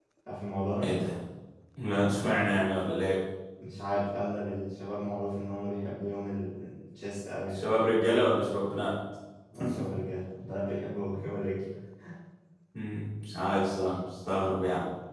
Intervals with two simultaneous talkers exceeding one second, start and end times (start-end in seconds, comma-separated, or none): none